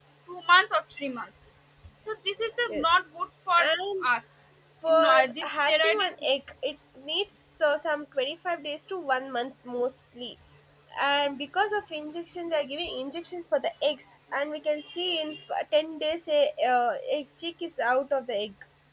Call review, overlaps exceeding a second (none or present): present